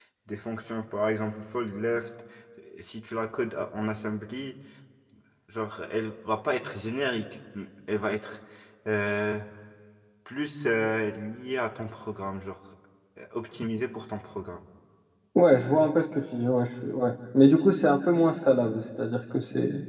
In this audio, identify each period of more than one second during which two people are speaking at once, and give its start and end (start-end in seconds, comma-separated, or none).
none